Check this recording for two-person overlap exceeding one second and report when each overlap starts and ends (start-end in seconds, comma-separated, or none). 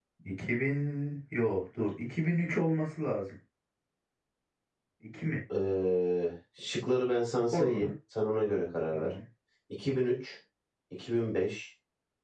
none